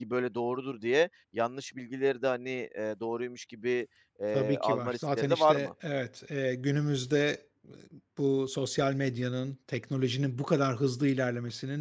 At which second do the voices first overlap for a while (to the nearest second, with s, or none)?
4 s